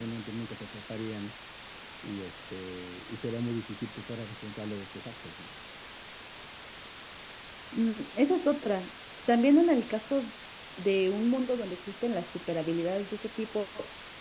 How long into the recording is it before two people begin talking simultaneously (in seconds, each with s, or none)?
none